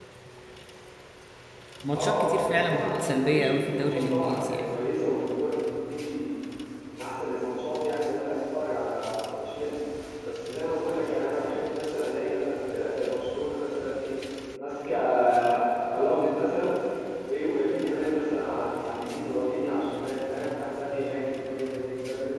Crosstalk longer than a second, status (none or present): present